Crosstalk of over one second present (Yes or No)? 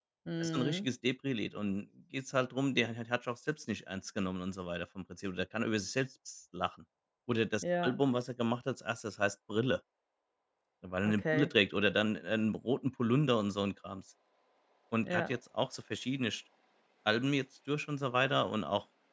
No